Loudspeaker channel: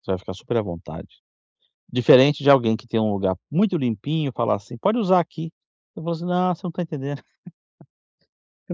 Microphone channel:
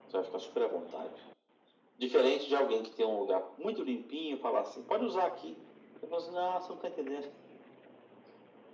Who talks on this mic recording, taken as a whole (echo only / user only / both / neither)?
echo only